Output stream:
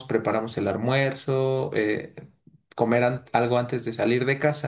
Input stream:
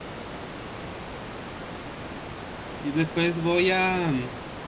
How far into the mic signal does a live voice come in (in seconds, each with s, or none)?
2.8 s